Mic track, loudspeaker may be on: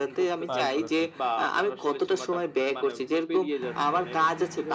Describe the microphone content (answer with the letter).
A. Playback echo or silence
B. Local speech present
B